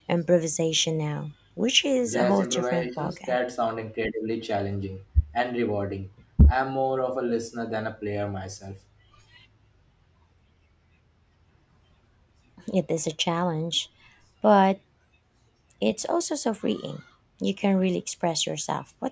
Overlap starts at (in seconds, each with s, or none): 2.0 s